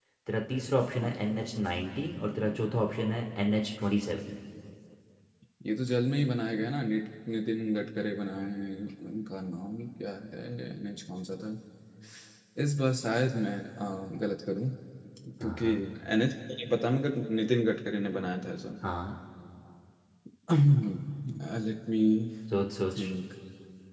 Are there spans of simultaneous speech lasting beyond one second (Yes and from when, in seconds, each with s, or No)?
No